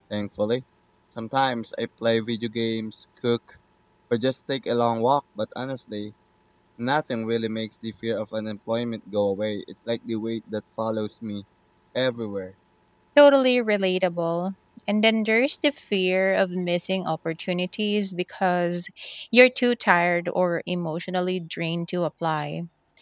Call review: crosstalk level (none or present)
none